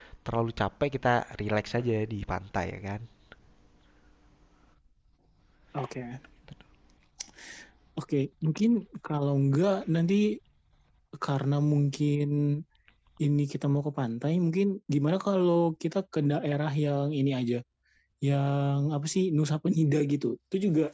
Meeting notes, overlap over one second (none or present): none